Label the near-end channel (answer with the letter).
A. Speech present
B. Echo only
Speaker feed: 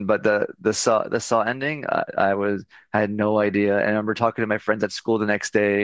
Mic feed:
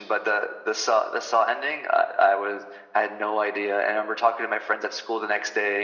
B